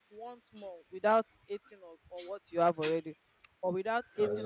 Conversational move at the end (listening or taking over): listening